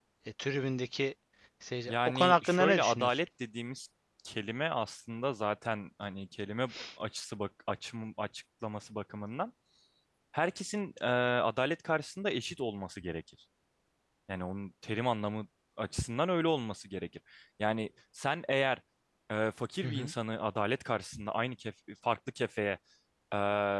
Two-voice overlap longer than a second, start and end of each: 1.9-3.2

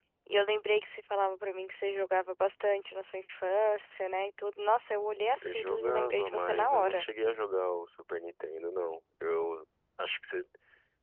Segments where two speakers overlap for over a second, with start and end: 5.4-7.0

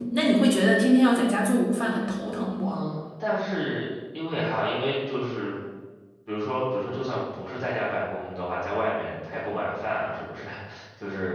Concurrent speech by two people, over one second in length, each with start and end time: none

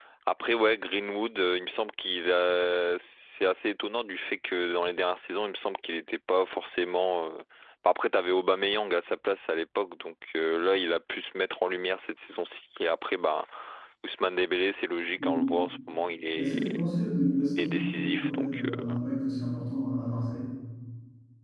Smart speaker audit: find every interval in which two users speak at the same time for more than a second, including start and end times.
17.6-18.9

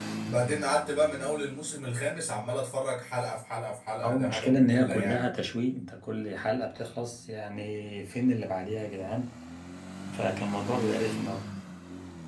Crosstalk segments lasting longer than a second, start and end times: 4.0-5.3

